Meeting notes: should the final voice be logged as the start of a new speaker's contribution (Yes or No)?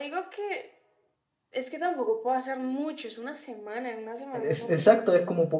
Yes